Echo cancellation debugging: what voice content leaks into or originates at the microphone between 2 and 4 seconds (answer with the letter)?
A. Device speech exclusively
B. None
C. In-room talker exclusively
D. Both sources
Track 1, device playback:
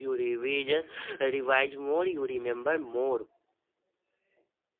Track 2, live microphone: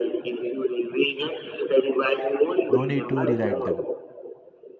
D